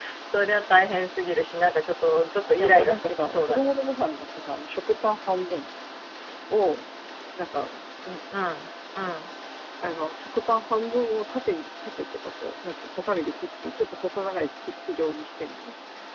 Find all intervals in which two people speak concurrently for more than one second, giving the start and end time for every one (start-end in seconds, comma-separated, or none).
2.5-3.7